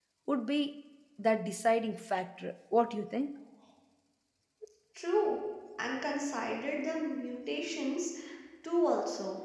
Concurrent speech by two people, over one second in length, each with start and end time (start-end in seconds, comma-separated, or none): none